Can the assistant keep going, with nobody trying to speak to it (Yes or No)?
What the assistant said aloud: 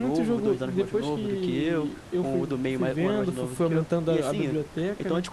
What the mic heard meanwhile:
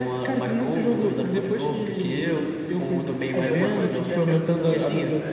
No